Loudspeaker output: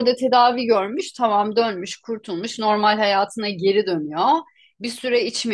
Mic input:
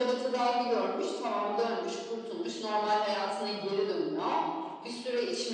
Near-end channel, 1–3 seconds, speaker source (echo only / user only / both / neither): echo only